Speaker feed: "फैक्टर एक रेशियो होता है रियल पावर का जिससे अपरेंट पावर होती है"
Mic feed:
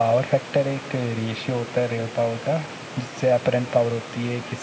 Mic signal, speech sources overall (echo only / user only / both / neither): echo only